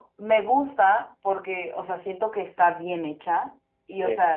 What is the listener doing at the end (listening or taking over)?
listening